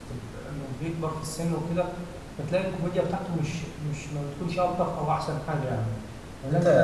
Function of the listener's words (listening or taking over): taking over